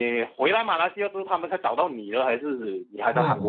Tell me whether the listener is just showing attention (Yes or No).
No